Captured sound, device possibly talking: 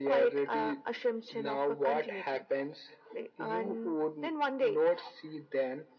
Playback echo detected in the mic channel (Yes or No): Yes